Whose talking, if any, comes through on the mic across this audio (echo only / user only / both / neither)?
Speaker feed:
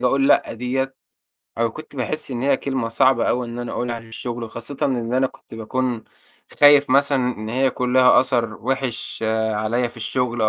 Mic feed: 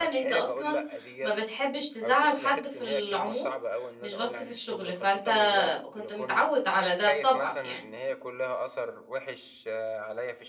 both